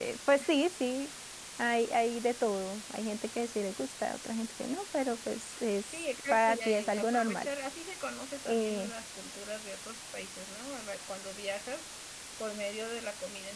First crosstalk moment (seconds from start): 5.9 s

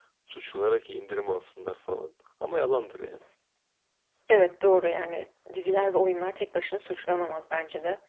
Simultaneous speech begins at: none

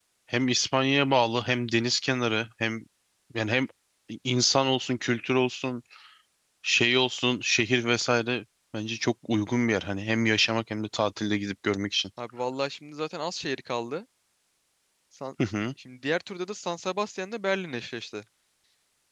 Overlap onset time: none

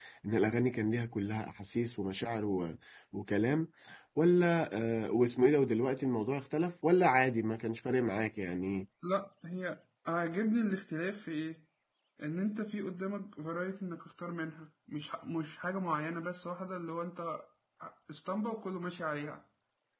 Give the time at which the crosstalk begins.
none

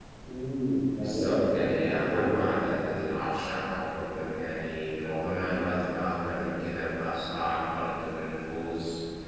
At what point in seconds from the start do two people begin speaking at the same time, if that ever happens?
1.0 s

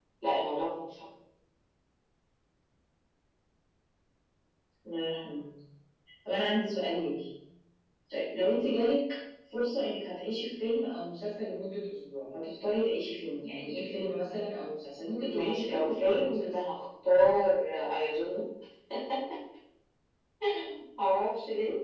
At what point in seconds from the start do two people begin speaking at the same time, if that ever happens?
15.2 s

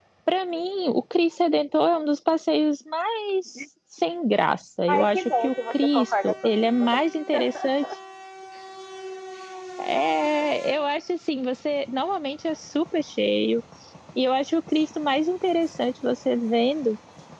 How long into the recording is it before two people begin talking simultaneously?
4.9 s

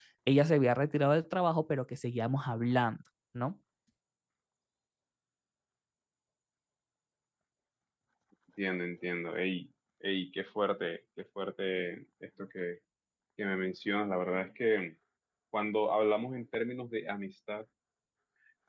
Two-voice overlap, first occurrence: none

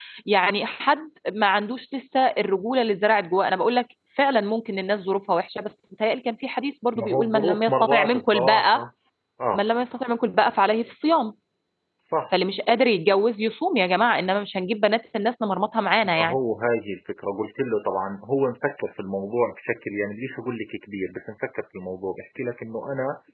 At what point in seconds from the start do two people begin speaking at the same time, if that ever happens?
7.0 s

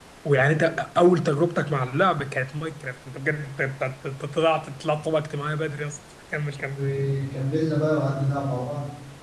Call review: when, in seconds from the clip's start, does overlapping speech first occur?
none

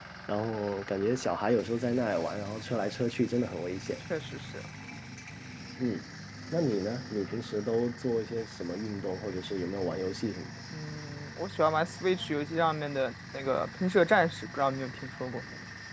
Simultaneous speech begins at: none

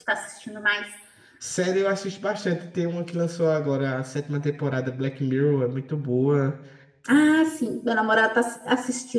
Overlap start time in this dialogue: none

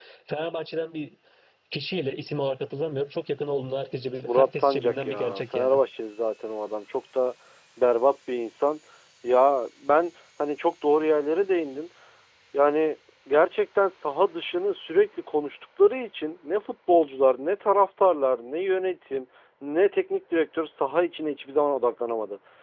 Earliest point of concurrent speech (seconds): 4.3 s

